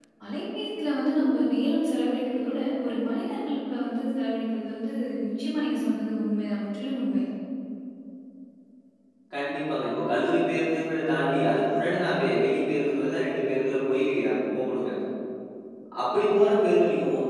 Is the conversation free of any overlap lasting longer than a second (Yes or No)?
Yes